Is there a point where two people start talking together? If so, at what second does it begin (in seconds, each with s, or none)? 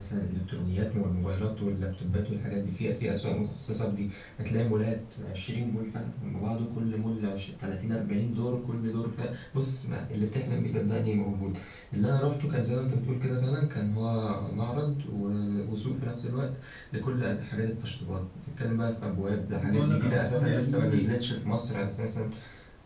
19.5 s